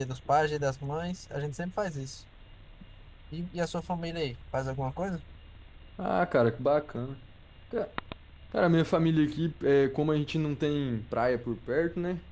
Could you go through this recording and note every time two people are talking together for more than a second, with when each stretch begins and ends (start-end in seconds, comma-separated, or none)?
none